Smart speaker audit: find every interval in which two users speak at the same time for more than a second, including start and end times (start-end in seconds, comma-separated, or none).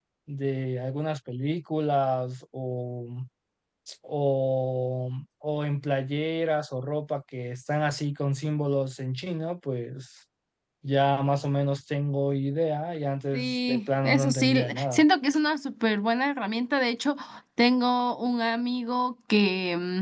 13.3-15.0